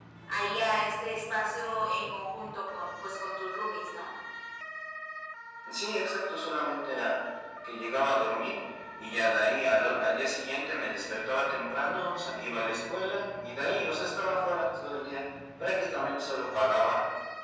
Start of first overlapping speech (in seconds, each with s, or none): none